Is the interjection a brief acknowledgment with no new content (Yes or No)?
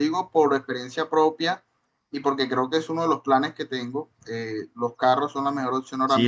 No